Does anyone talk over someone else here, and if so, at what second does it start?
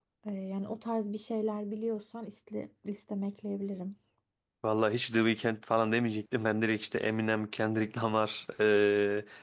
none

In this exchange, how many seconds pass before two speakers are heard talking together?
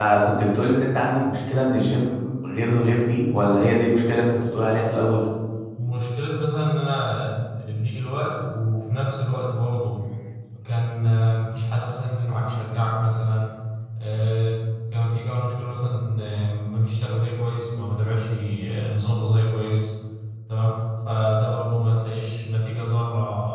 none

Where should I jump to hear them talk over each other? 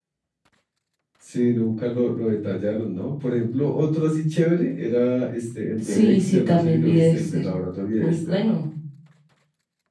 5.8 s

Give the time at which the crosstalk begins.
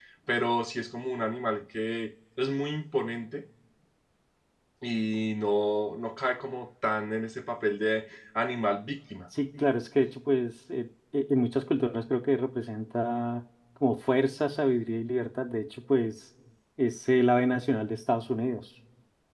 none

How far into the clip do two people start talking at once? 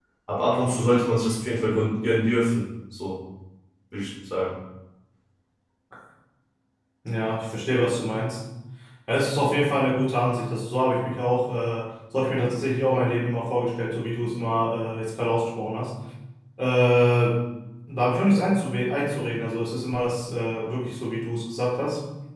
none

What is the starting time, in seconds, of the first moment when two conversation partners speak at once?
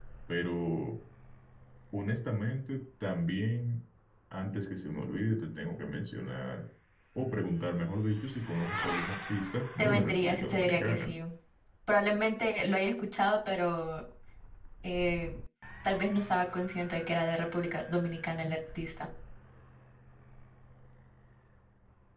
9.8 s

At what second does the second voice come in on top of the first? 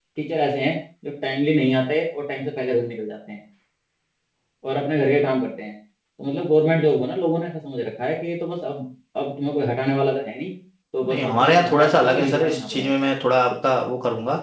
11.1 s

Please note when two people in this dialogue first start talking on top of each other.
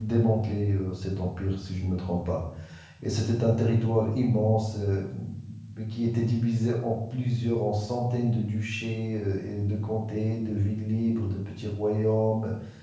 none

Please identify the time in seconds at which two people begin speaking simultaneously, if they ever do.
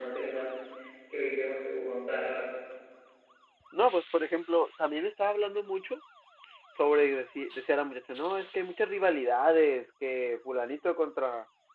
none

